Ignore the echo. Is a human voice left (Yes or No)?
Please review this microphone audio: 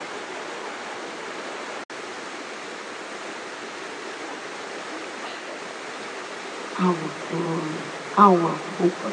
Yes